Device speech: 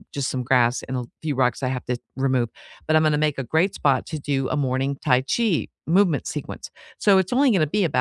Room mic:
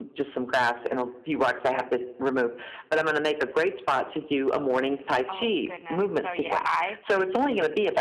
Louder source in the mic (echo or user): echo